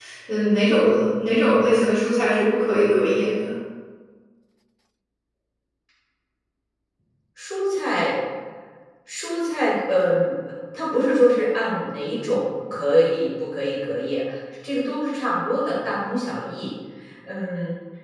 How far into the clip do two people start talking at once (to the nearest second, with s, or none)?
none